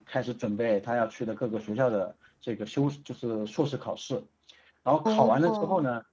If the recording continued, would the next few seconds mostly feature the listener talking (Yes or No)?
No